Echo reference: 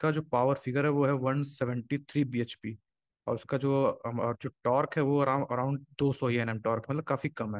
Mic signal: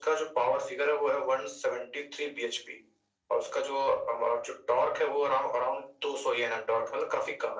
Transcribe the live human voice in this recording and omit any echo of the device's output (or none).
none